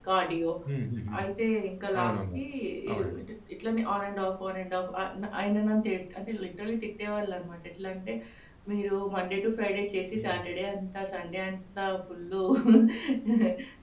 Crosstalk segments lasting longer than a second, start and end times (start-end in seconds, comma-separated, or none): none